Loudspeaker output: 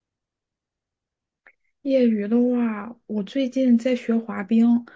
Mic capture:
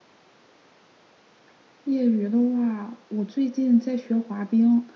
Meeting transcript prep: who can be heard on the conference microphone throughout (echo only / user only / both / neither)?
echo only